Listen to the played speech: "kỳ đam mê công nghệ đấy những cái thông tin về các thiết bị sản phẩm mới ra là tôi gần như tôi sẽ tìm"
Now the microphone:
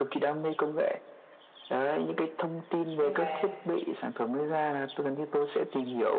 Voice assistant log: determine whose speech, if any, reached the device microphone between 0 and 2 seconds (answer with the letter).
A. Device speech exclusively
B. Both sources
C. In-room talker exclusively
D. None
A